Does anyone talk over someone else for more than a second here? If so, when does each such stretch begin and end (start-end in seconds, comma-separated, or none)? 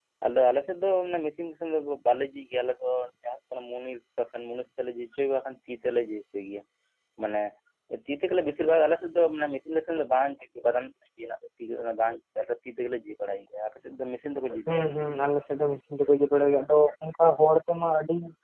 none